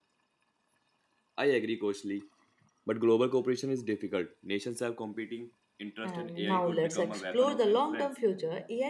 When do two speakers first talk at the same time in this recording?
6.0 s

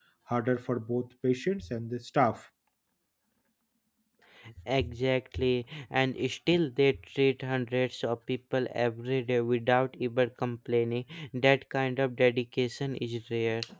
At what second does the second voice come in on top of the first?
none

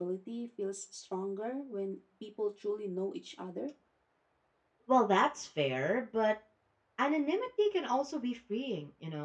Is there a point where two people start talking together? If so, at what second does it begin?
none

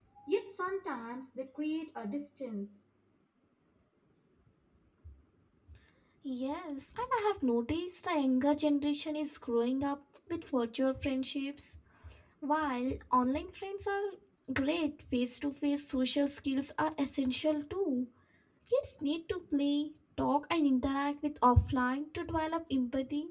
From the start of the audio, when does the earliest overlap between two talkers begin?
none

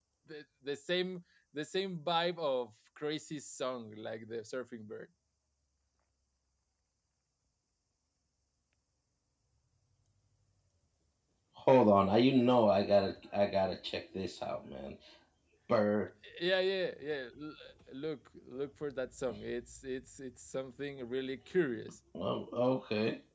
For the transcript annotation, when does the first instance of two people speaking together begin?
none

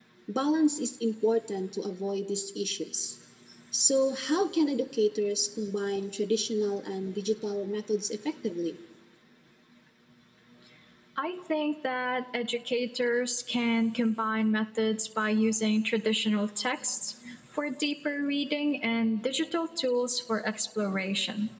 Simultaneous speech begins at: none

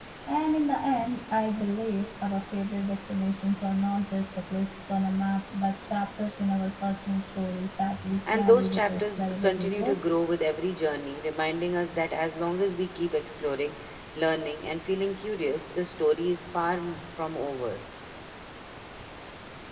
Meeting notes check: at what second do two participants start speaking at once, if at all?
8.3 s

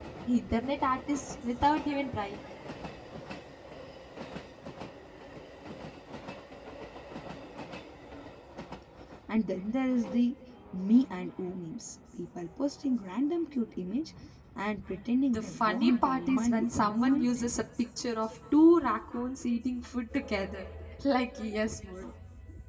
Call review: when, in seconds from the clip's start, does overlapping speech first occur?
15.3 s

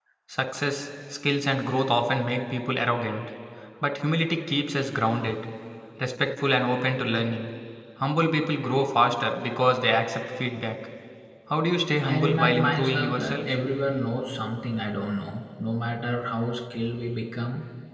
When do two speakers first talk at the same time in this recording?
12.0 s

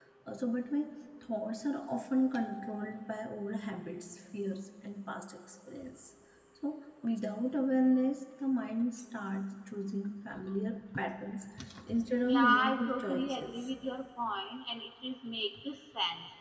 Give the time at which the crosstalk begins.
12.3 s

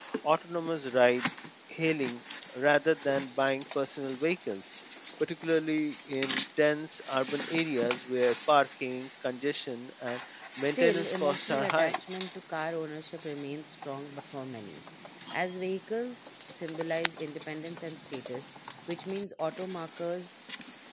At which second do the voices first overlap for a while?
10.6 s

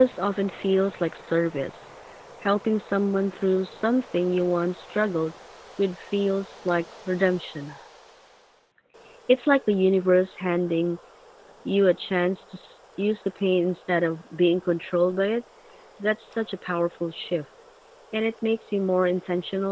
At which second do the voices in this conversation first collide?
none

